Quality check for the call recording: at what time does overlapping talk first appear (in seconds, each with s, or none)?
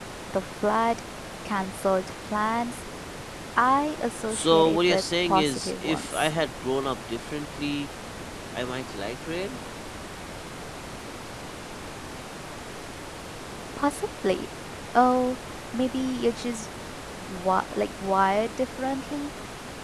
4.3 s